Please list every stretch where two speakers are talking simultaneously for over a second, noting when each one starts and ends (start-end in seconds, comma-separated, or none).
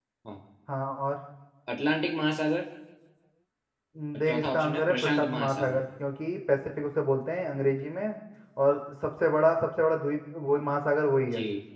4.2-5.8